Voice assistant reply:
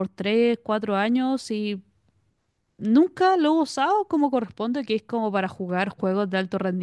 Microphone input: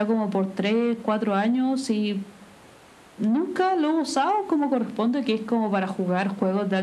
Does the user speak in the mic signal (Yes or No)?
No